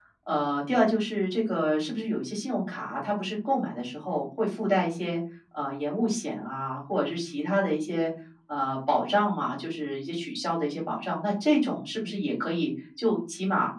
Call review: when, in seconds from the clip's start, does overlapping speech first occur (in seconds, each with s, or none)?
none